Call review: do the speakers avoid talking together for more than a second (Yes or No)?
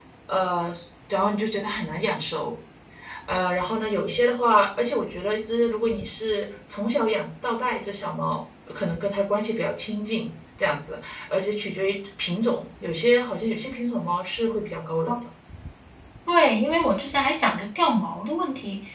Yes